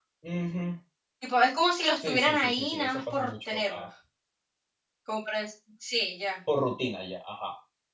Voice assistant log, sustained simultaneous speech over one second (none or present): present